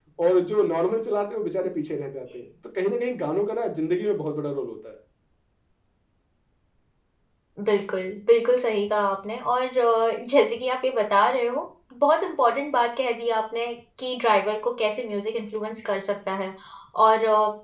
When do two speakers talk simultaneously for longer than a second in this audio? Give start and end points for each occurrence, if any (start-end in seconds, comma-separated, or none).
none